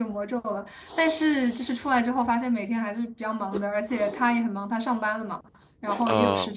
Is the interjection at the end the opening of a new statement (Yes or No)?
No